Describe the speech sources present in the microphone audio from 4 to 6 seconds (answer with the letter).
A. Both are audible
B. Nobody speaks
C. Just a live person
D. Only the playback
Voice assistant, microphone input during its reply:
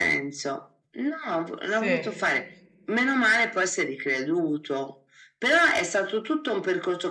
D